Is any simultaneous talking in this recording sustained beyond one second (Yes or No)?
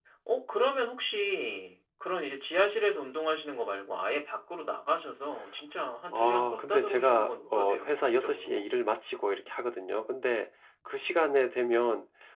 Yes